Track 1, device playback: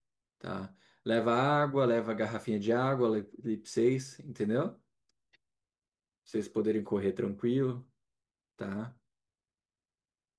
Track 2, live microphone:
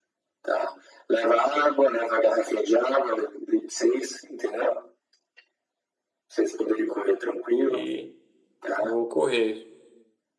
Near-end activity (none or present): present